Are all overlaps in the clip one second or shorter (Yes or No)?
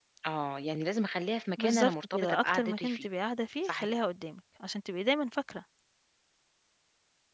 No